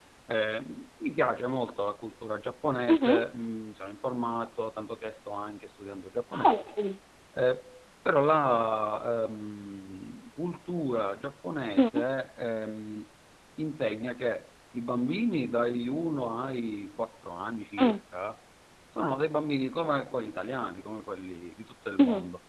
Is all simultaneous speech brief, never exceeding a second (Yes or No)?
Yes